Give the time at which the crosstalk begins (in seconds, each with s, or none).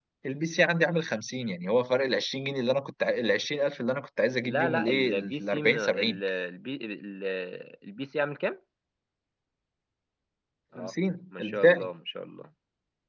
4.5 s